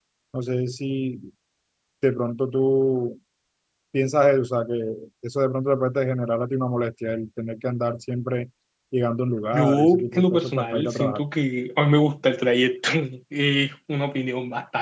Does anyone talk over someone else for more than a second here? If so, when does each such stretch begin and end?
9.5-11.2

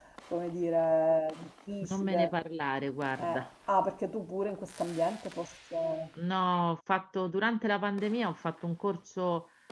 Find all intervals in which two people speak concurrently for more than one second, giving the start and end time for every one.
none

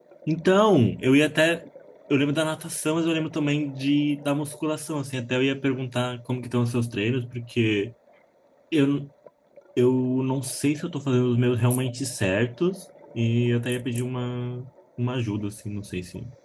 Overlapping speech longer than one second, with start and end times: none

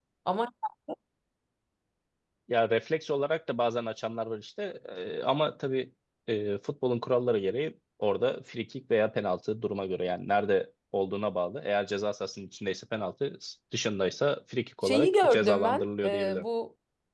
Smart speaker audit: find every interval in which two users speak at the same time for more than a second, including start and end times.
14.8-16.4

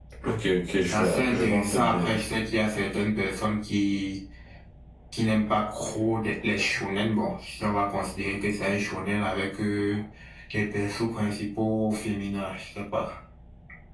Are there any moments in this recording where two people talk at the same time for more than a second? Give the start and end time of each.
0.8-2.2

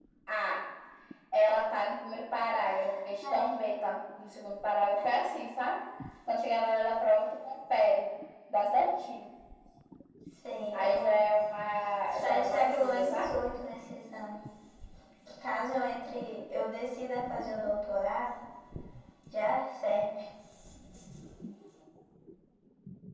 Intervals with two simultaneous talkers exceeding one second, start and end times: 12.1-13.3

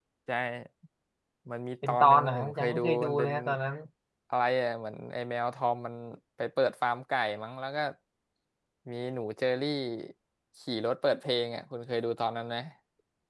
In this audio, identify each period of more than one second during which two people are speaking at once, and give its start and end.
1.9-3.3

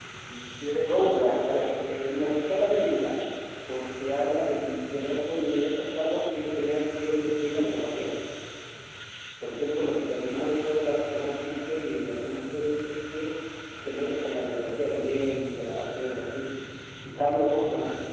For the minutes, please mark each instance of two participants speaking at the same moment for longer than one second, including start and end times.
0.9-2.1

